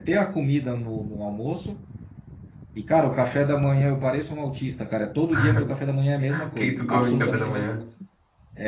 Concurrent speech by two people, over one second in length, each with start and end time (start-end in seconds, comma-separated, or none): 6.3-7.7